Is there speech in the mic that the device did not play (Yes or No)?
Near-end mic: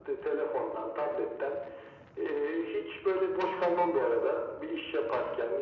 No